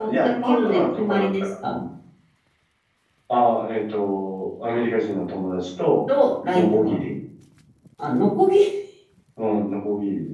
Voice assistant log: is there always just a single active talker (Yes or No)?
No